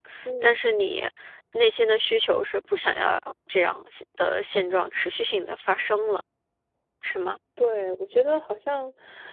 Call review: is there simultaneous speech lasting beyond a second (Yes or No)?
No